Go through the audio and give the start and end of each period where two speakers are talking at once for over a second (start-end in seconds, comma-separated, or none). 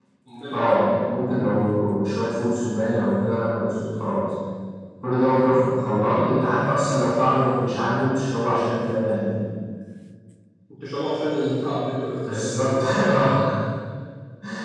none